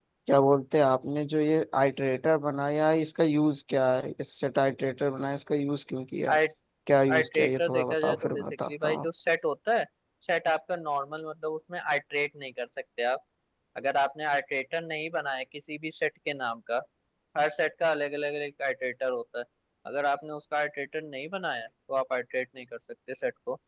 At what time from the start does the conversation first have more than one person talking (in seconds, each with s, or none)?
7.1 s